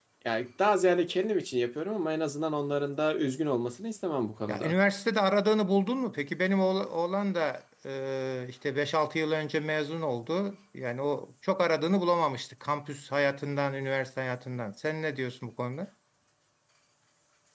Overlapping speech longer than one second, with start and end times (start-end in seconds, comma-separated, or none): none